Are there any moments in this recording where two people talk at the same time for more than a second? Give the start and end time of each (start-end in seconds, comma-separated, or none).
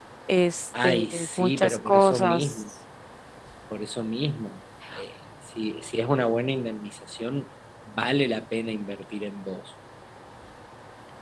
0.8-2.5